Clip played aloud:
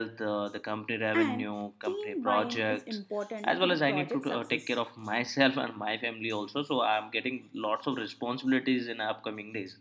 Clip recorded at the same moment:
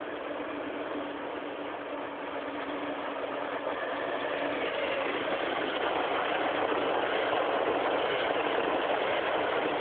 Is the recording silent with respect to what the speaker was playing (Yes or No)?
Yes